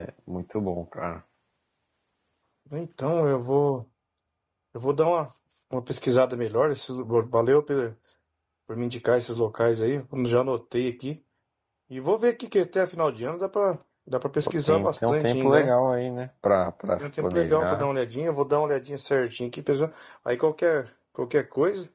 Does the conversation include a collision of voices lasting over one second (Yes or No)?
Yes